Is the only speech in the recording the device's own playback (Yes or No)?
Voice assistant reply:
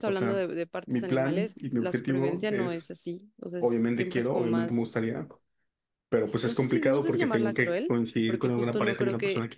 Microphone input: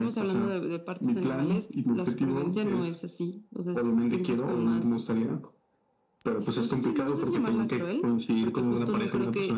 Yes